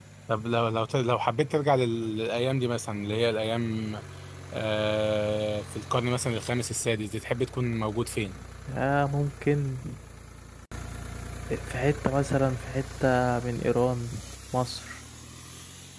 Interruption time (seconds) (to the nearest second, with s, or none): none